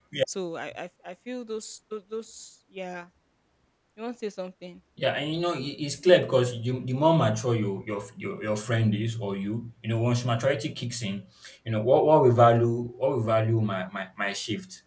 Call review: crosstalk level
none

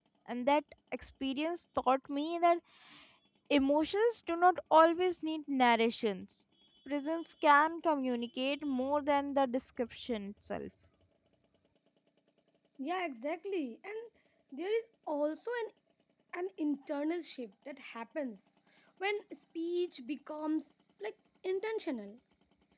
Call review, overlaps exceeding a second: none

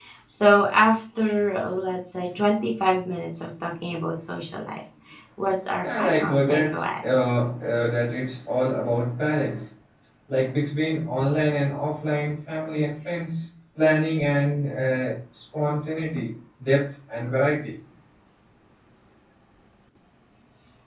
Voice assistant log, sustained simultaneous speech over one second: present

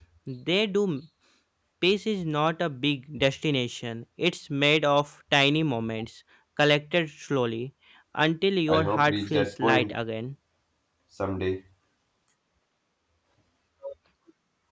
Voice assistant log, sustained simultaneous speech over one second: present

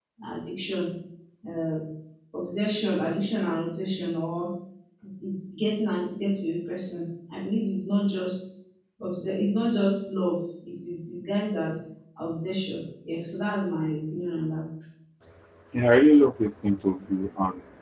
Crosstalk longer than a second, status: none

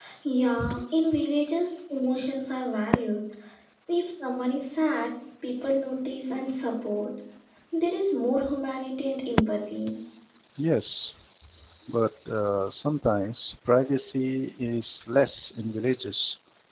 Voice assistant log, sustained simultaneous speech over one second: none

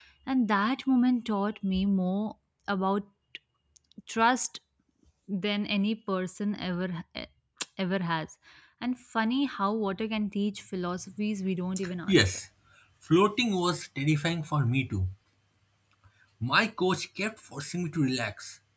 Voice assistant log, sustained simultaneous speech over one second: none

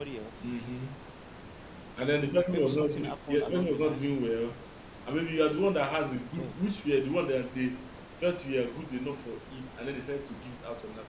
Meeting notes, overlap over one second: present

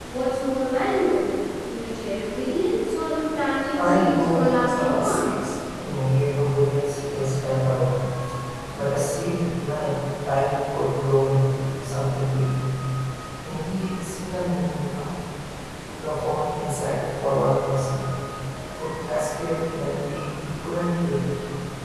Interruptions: present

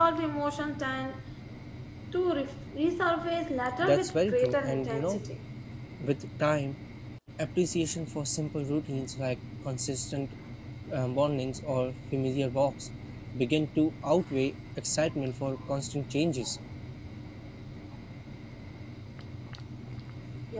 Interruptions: present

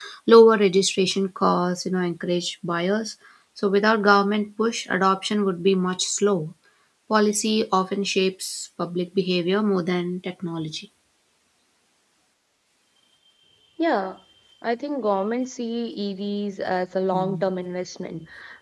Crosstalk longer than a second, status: none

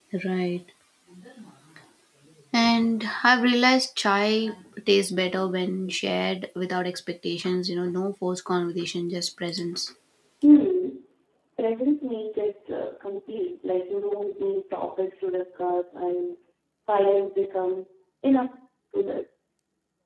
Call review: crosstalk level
none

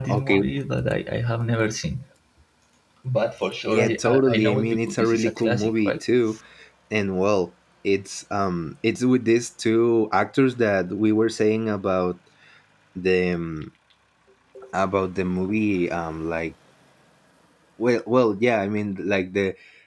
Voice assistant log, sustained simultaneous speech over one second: present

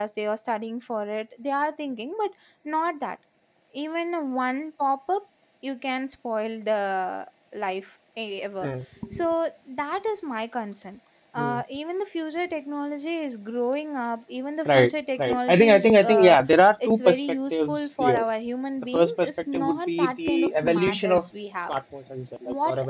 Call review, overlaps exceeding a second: present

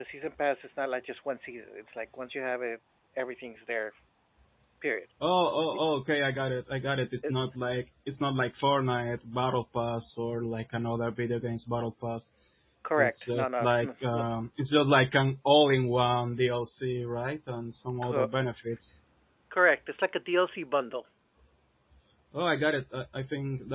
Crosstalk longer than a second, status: present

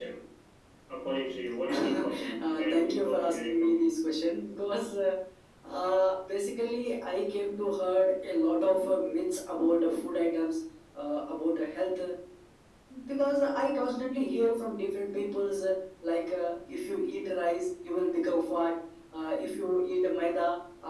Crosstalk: present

